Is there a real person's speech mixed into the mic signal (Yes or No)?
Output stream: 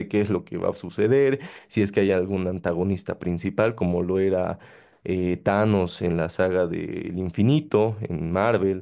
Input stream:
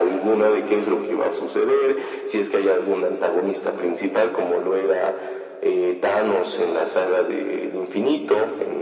No